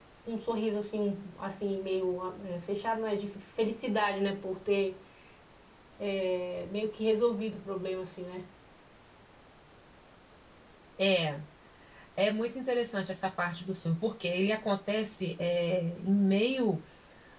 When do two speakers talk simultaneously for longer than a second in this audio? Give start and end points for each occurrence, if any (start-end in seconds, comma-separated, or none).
none